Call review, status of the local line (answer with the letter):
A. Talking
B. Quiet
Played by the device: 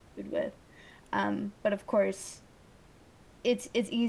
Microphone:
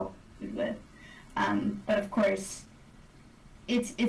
B